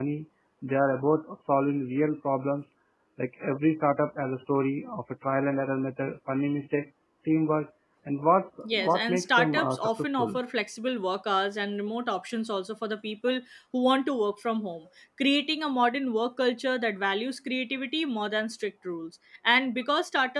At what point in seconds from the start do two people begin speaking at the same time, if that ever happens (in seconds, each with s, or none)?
8.6 s